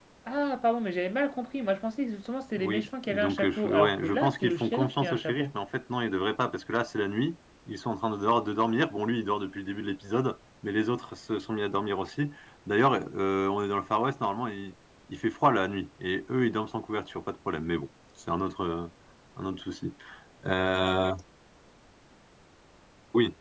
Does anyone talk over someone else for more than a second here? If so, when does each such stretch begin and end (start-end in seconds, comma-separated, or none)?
2.6-5.5